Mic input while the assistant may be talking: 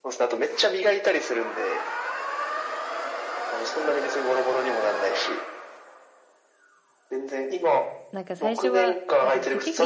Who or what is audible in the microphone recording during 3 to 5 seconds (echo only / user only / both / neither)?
echo only